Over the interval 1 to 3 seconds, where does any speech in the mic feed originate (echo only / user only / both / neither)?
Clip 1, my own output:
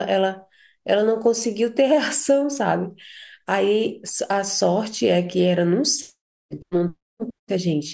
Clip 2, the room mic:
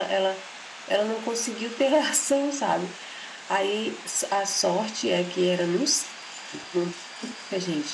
echo only